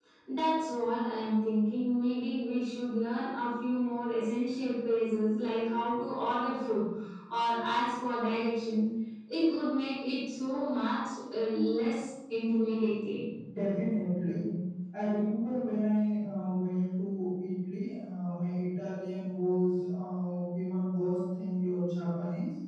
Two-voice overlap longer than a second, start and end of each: none

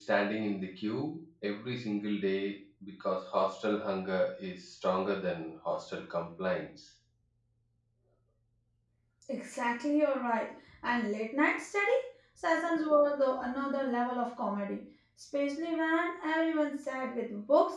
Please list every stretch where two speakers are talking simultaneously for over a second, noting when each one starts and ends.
none

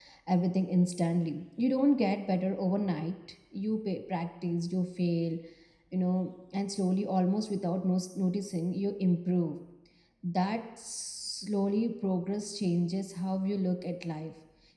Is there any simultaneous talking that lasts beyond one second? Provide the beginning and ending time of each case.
none

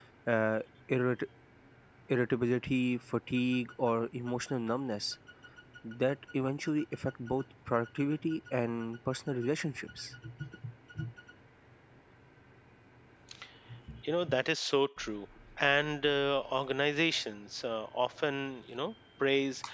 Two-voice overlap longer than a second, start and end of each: none

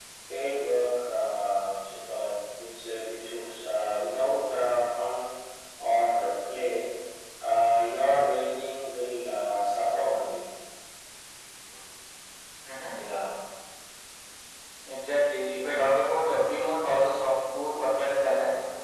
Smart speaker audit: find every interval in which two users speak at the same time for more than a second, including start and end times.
none

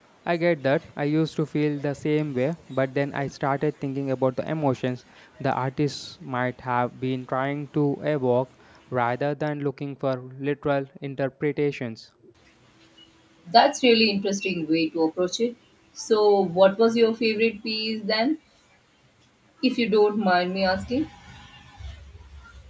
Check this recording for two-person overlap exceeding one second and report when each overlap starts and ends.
none

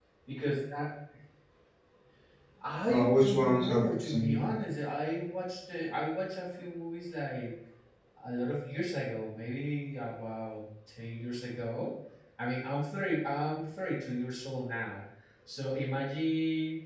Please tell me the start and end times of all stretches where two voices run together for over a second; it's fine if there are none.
2.9-4.5

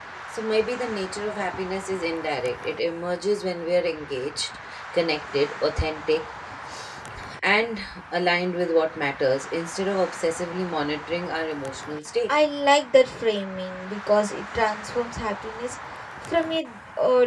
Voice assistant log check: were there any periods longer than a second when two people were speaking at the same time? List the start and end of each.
none

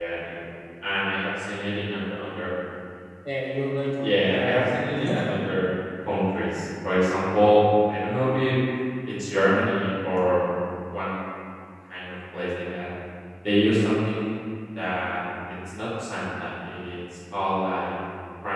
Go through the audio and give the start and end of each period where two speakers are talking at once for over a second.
4.0-5.4

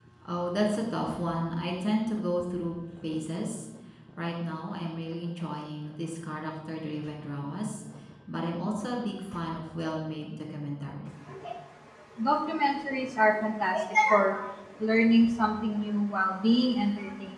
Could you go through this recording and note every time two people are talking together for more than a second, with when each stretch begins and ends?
none

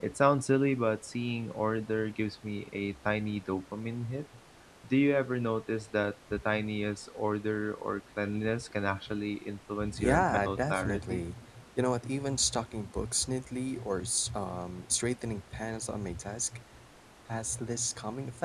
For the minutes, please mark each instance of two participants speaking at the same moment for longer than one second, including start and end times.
10.0-11.2

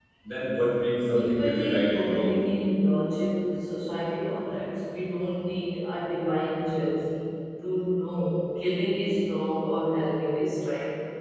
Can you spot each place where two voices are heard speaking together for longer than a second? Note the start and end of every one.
1.1-2.4

